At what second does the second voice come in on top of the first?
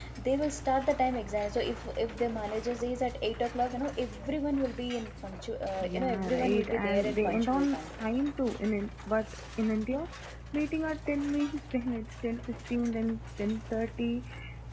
5.8 s

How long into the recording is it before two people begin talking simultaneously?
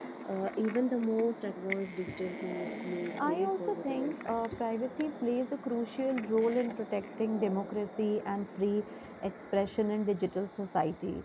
3.2 s

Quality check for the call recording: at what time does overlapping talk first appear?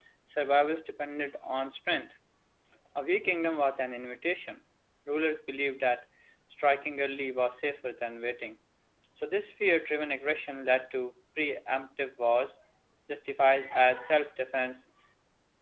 none

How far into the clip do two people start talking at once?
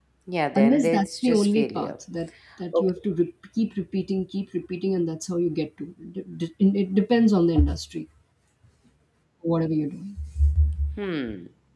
0.6 s

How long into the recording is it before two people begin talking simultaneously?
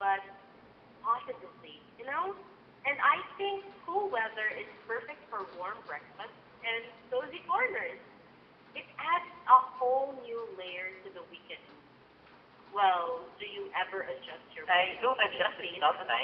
14.7 s

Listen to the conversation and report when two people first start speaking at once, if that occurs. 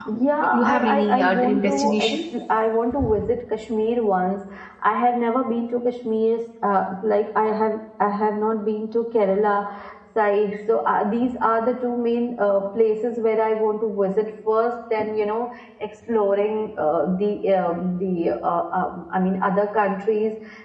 0.5 s

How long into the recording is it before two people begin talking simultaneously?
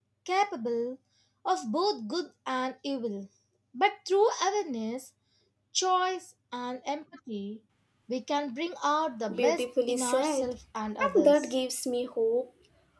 9.3 s

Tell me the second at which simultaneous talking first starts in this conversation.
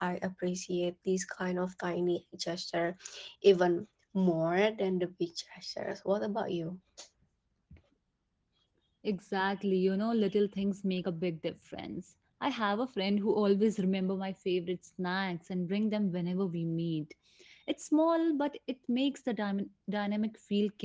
none

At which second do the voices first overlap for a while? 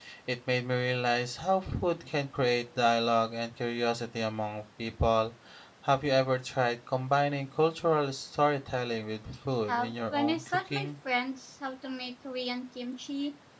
9.7 s

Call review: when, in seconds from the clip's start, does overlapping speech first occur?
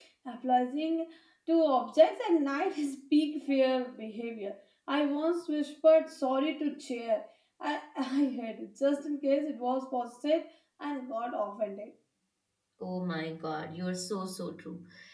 none

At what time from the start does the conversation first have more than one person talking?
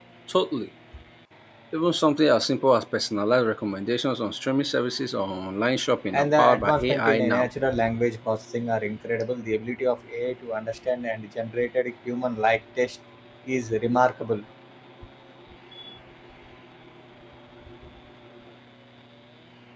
6.1 s

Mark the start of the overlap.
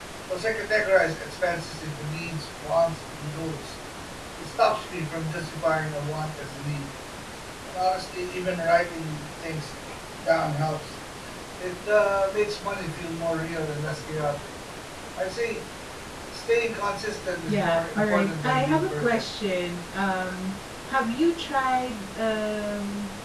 17.5 s

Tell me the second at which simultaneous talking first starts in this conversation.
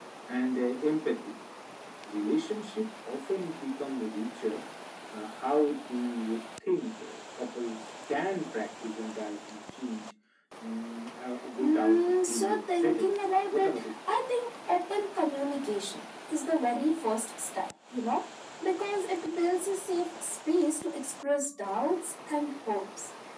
11.6 s

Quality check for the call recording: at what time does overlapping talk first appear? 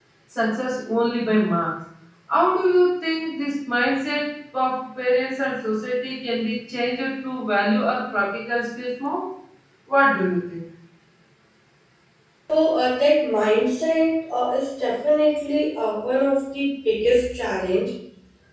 none

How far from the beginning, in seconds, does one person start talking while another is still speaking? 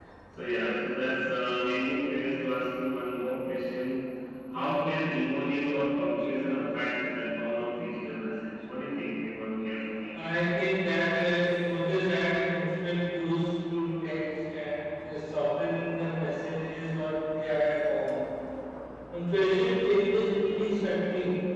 none

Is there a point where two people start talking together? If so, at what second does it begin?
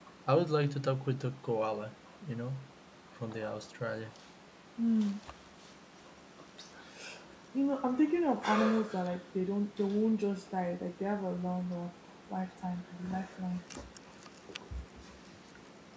none

